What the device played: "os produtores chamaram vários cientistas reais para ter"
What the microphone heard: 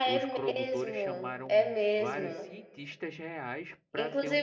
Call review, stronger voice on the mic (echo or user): user